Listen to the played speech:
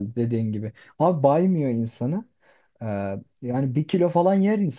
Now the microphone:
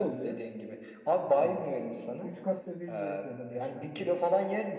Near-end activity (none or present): present